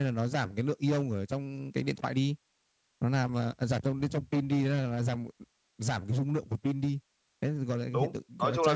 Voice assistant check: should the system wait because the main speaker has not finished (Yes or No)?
No